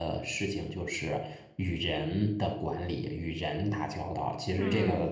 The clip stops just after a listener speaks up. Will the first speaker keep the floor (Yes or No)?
Yes